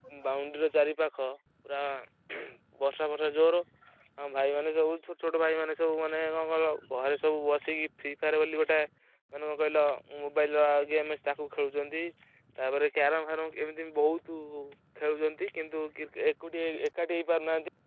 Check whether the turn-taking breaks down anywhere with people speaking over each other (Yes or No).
No